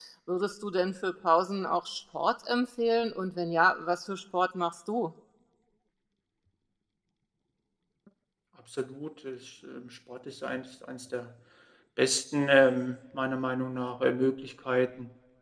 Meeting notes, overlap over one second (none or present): none